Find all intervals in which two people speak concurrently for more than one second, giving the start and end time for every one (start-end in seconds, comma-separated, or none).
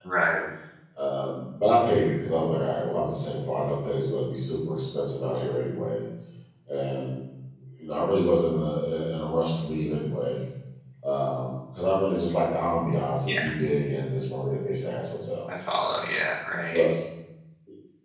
none